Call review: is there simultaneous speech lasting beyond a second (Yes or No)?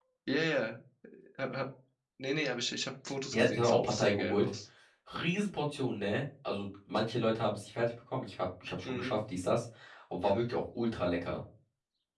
Yes